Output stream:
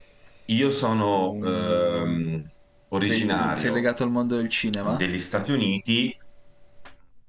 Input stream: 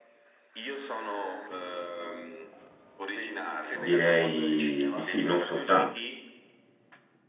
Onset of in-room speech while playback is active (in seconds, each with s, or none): 3.7 s